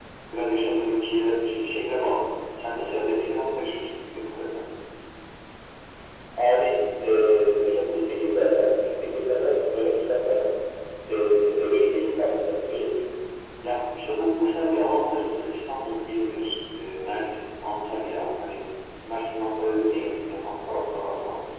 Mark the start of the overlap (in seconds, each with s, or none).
none